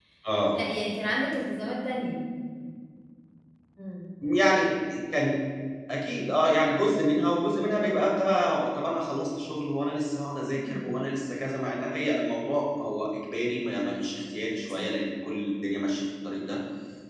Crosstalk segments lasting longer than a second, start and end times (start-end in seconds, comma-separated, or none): none